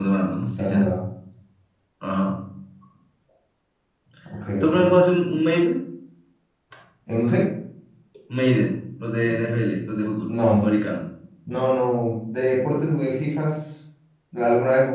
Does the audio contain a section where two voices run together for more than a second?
No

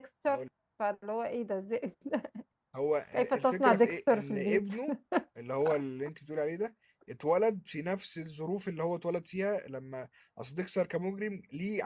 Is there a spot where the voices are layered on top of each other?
Yes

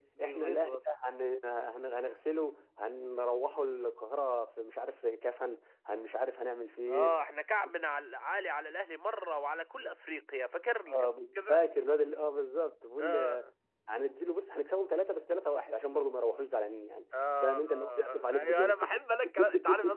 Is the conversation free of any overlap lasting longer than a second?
No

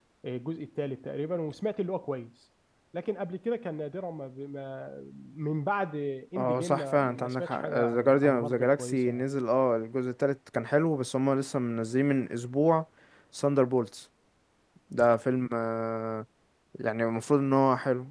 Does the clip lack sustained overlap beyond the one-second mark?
No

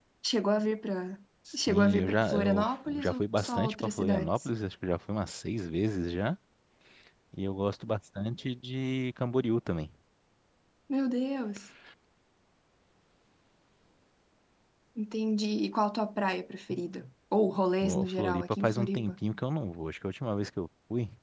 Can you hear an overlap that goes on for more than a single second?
Yes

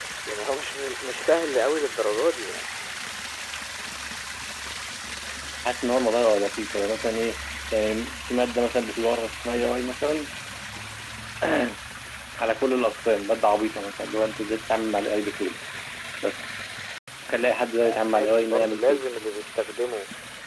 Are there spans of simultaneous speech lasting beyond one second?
Yes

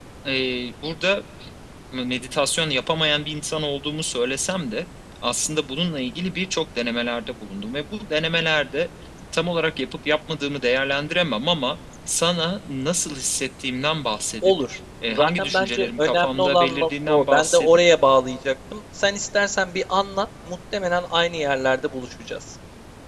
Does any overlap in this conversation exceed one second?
Yes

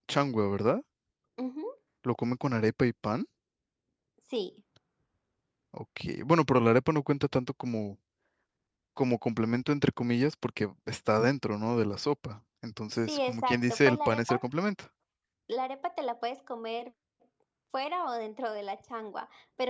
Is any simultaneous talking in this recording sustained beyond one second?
Yes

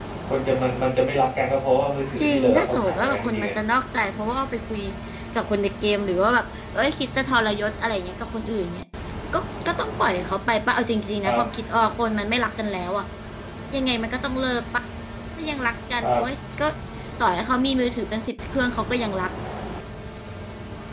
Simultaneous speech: Yes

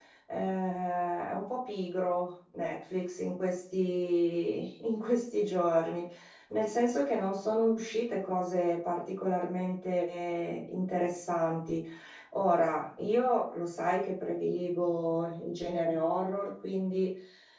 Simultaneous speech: No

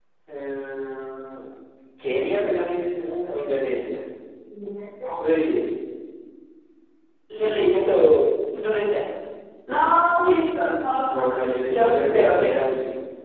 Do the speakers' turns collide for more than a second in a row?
Yes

